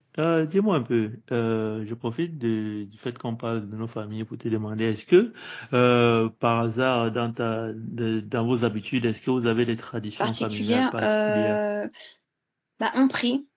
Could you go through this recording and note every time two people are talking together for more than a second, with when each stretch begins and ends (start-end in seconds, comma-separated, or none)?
10.2-11.6